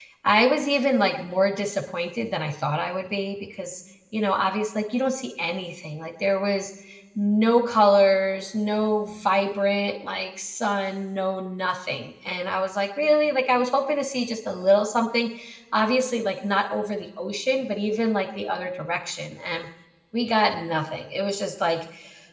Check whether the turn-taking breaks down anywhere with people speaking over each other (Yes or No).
No